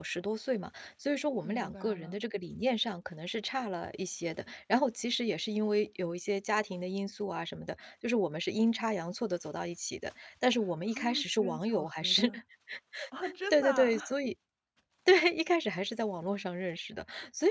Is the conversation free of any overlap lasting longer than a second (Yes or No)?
No